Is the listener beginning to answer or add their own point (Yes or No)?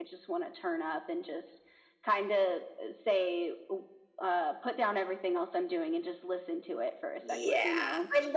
Yes